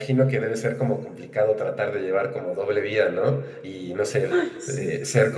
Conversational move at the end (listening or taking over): listening